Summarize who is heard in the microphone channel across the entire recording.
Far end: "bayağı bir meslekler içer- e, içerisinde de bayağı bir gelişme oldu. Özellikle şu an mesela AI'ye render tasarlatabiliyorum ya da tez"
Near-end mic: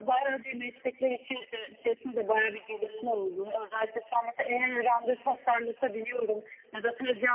echo only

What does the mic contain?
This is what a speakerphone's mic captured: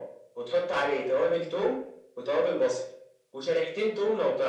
echo only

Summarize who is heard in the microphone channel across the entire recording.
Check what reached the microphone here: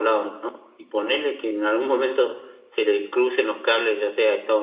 user only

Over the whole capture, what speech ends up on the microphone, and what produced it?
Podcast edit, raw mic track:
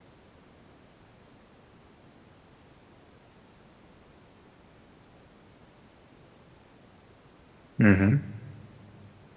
user only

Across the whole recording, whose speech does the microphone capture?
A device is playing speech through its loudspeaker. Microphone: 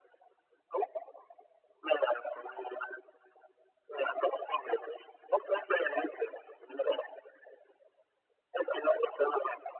echo only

